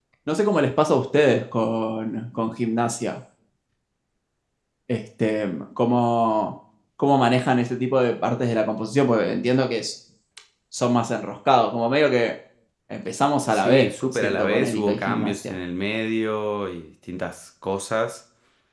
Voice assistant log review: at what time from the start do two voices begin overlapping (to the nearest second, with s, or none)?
14 s